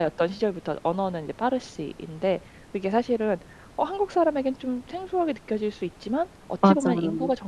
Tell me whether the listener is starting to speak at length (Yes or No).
No